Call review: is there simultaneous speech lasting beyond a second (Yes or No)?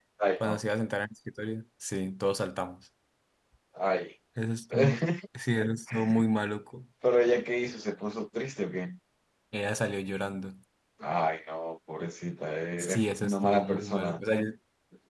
Yes